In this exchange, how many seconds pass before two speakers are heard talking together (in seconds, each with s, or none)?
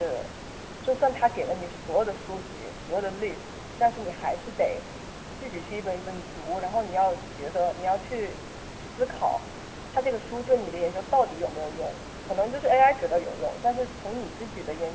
none